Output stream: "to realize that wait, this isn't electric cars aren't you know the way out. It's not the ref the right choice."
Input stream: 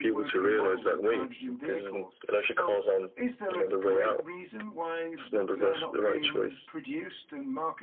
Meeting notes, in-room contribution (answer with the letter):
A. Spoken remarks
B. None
A